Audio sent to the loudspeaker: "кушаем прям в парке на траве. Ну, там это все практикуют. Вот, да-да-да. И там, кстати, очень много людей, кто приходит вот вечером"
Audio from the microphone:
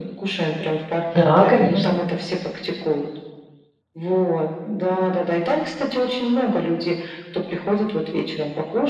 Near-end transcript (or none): Да, конечно.